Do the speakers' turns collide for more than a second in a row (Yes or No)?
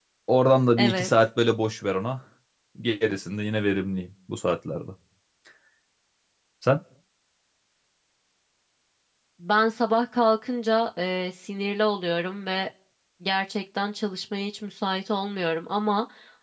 No